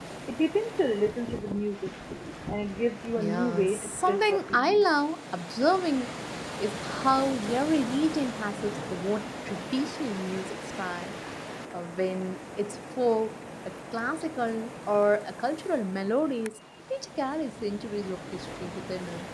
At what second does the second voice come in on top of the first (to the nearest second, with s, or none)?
3 s